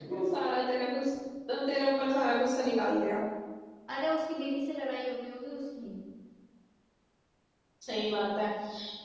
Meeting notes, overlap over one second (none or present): none